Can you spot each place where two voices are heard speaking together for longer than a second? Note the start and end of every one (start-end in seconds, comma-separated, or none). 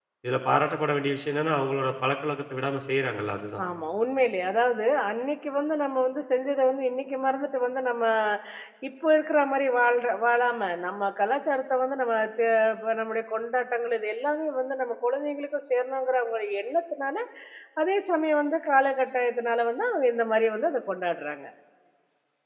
none